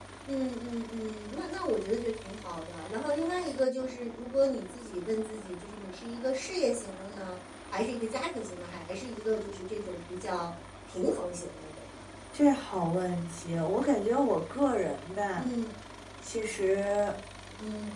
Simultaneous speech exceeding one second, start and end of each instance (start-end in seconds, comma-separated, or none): none